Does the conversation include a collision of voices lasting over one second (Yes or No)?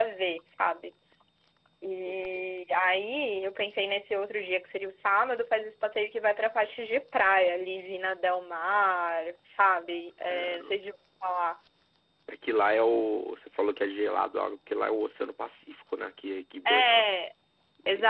No